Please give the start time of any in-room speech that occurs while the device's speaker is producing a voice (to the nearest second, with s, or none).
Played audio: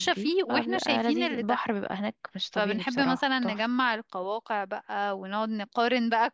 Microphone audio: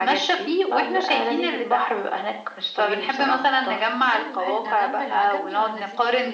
4 s